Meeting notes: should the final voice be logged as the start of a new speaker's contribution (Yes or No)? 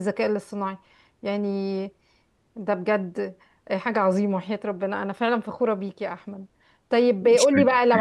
No